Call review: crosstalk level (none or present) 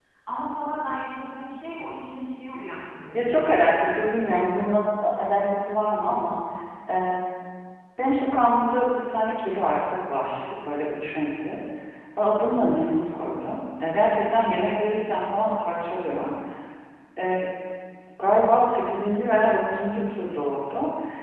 present